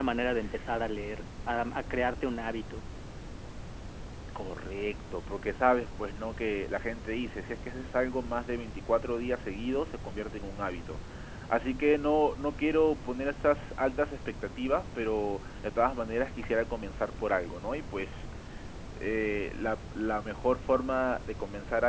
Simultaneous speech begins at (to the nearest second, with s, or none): none